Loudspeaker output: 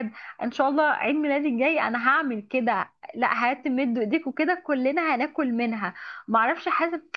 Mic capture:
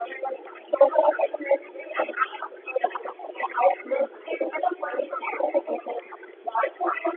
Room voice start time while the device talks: none

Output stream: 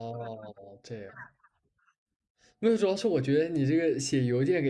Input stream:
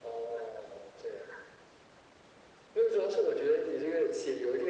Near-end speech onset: none

